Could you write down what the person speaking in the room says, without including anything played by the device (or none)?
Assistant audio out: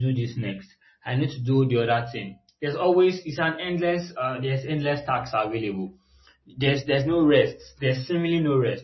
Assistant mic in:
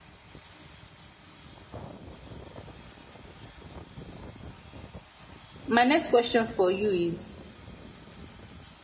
my next question for you is